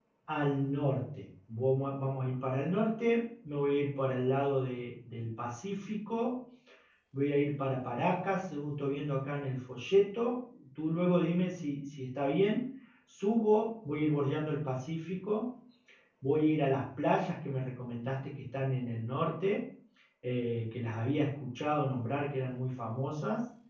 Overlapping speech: No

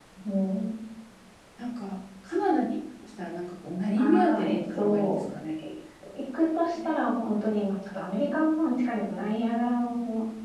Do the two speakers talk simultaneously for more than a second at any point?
Yes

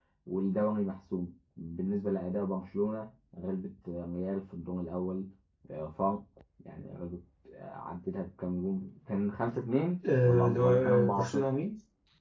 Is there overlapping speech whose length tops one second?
Yes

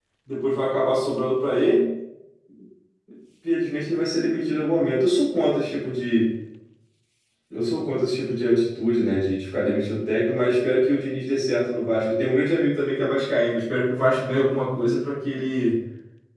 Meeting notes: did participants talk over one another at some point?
No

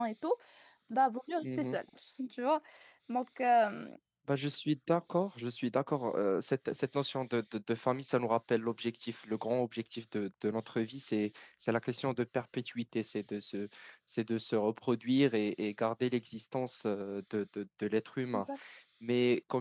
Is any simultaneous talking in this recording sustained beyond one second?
No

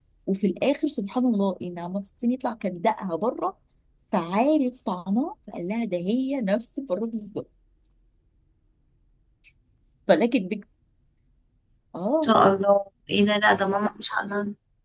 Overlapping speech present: No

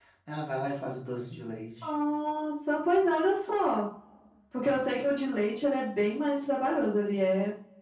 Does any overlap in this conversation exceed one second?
No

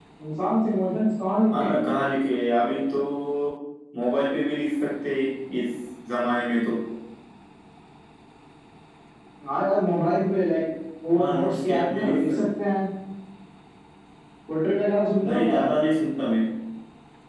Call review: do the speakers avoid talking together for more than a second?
No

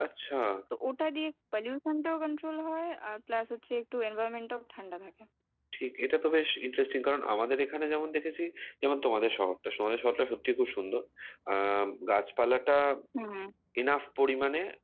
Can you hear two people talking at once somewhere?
No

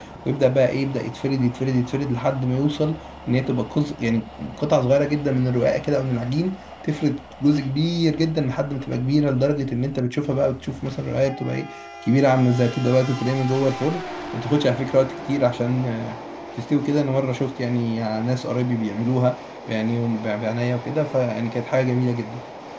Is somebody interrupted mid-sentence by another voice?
No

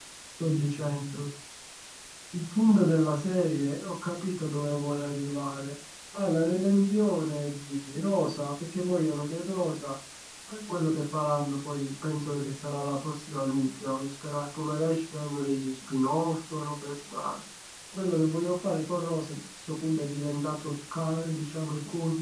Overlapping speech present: No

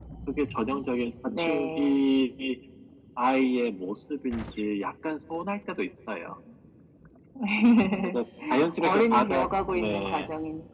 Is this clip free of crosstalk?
No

